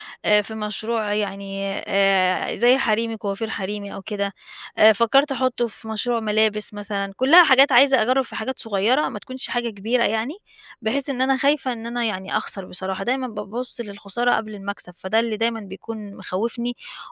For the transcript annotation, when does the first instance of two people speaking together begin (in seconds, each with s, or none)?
none